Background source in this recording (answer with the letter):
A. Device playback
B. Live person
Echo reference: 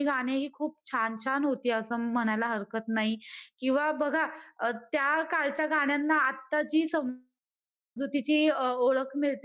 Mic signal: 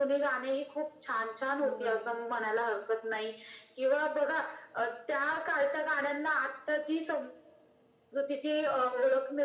B